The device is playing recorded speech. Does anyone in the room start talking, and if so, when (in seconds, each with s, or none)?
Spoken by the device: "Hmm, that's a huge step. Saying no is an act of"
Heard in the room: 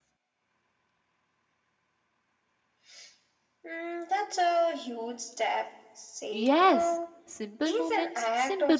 6.3 s